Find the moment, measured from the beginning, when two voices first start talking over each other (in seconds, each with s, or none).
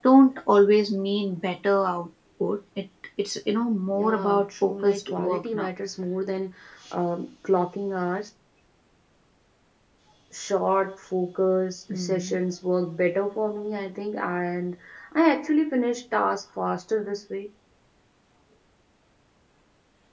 3.9 s